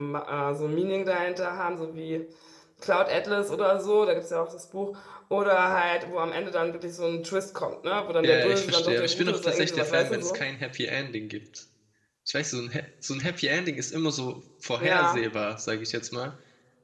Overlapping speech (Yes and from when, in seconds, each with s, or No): Yes, from 8.2 s